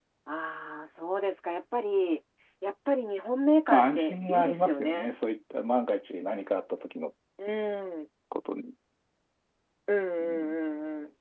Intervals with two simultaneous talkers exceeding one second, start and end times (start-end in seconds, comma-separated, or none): 3.7-5.1